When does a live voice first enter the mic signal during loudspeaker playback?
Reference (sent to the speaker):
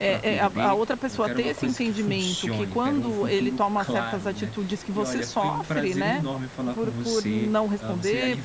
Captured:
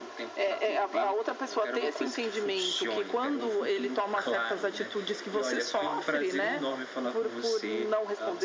none

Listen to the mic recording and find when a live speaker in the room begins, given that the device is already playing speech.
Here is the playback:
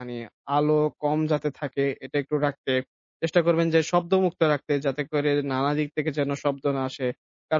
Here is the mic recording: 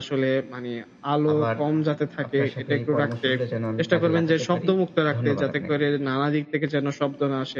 1.3 s

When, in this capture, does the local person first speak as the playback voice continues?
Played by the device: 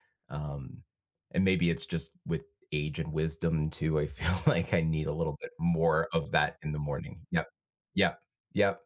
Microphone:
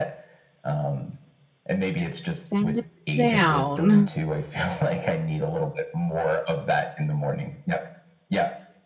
2.0 s

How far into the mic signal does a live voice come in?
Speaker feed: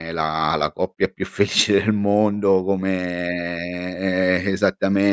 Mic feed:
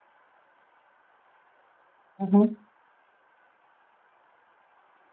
2.2 s

